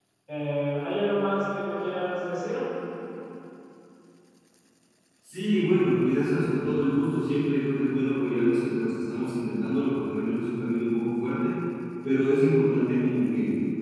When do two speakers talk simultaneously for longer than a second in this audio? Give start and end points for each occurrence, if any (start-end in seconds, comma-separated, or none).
none